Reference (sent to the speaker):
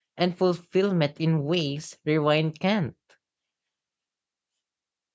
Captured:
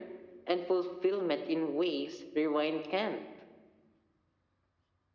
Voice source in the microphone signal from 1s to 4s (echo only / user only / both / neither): echo only